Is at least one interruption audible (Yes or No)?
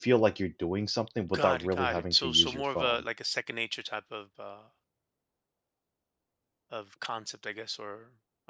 Yes